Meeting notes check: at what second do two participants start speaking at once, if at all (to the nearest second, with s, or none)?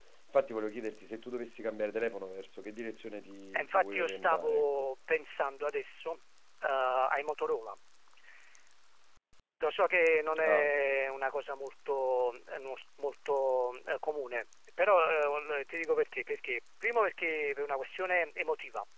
4 s